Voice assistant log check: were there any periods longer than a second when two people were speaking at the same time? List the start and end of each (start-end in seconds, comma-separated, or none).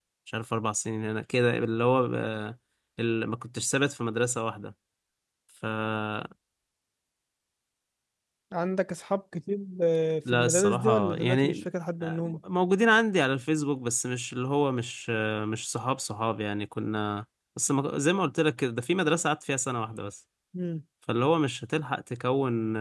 10.3-11.7